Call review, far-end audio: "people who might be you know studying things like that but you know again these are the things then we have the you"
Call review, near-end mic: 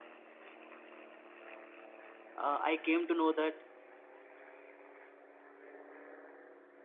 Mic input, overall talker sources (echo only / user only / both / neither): user only